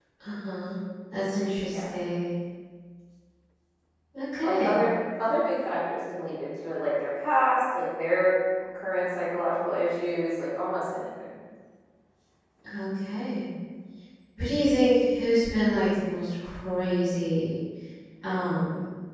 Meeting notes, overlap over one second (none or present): none